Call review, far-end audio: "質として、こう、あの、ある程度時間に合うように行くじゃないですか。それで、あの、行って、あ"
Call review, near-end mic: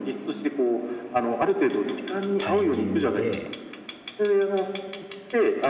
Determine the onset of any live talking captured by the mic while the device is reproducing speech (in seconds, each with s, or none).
2.4 s